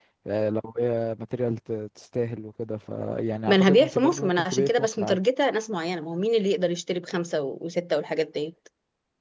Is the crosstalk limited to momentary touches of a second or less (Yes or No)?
No